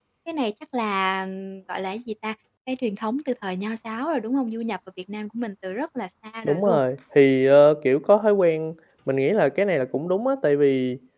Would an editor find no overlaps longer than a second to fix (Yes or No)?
Yes